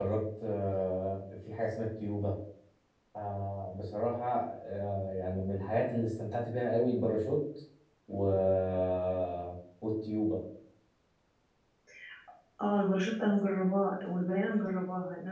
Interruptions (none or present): none